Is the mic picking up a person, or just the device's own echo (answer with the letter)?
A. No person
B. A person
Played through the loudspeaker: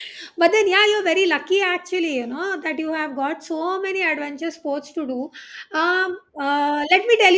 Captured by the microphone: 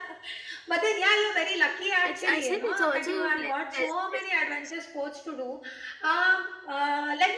B